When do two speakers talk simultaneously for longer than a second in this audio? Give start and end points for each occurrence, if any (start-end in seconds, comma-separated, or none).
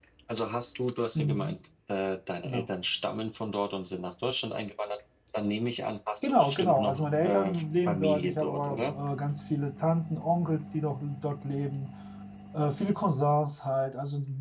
6.4-8.9